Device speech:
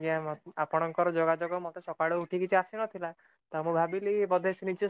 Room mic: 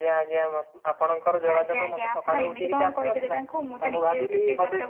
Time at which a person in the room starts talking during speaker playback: 2 s

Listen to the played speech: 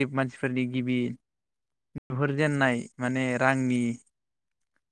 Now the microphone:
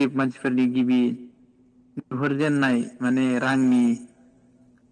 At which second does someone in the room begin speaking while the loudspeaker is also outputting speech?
none

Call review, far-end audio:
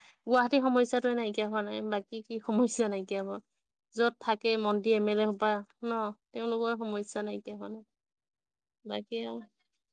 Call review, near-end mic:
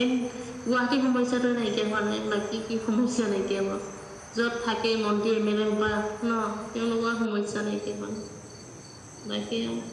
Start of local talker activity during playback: none

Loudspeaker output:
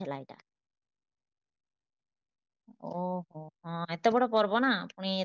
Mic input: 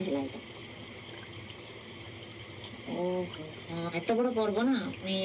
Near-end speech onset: none

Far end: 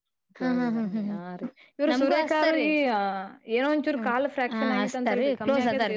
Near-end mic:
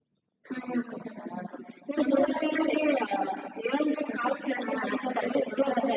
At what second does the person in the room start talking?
none

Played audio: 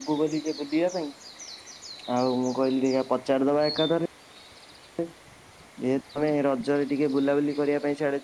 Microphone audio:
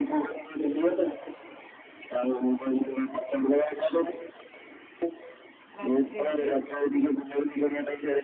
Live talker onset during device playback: 6 s

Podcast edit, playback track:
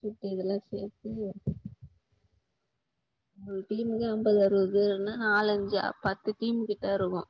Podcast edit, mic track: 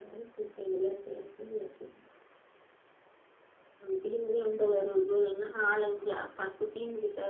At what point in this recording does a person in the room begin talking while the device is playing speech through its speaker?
none

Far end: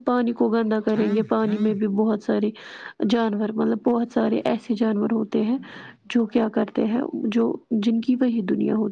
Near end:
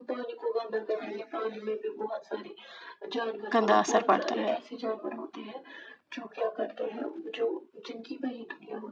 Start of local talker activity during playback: 4 s

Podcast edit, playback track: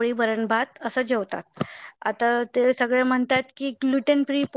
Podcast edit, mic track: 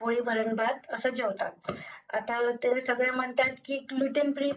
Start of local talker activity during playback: none

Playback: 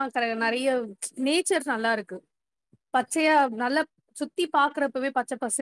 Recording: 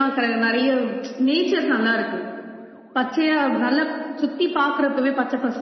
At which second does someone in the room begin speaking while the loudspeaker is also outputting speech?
none

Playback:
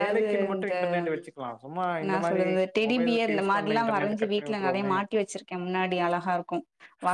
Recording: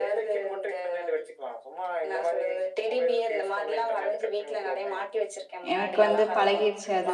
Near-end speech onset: 6 s

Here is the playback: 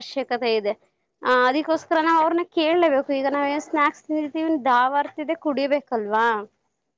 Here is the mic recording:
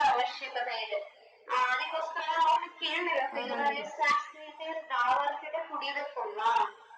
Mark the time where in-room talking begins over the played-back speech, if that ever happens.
3 s

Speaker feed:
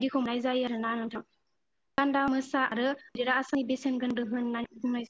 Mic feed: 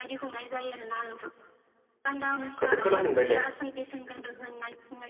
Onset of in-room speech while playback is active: 3 s

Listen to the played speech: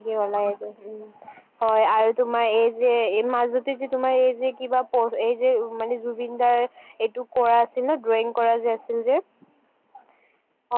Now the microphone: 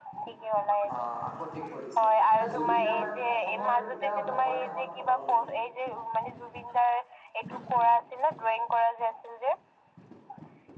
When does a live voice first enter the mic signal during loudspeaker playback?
1 s

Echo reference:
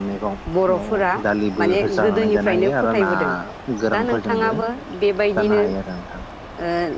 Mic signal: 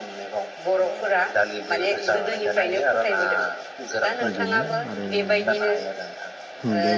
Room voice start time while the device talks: 4 s

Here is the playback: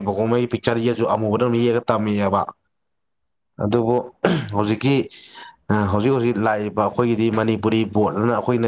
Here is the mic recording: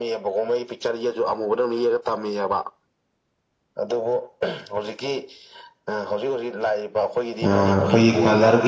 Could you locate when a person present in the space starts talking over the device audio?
7 s

